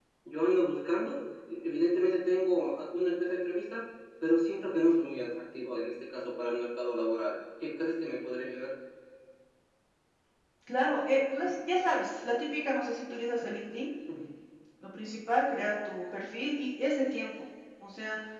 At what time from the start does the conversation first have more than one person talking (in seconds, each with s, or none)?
none